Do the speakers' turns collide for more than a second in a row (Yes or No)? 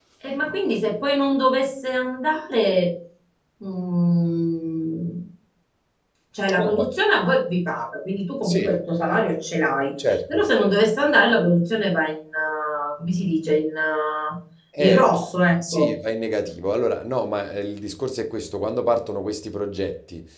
No